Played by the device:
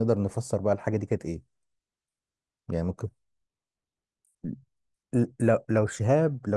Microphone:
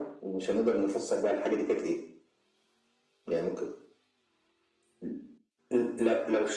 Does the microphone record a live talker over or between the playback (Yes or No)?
No